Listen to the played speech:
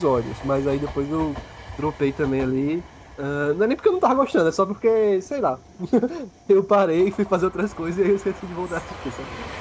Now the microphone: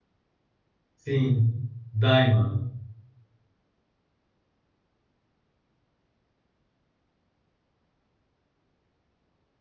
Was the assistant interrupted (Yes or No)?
Yes